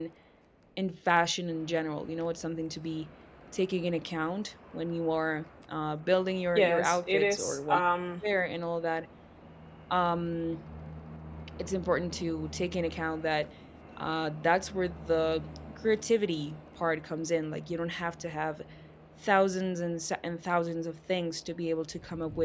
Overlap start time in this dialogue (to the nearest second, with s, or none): 7 s